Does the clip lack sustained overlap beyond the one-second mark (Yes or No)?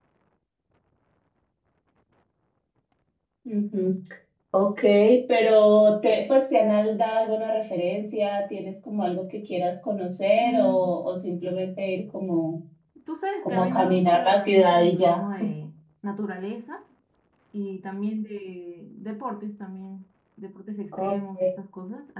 No